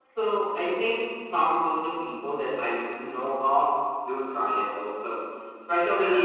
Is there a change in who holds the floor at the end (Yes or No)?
No